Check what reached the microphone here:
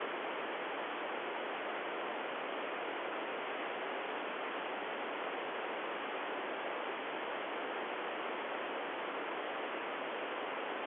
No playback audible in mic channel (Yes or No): Yes